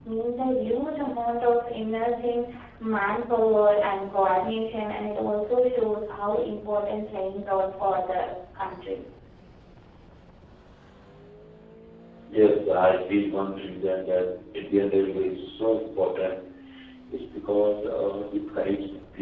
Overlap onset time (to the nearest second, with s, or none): none